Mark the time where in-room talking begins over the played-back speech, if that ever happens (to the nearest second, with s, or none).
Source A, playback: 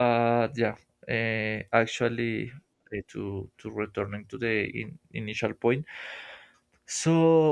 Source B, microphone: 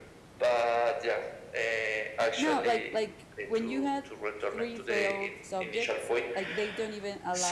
2 s